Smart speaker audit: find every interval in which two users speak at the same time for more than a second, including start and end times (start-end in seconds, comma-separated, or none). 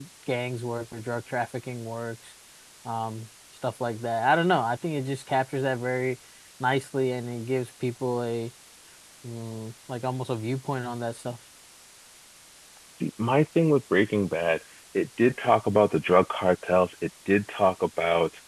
none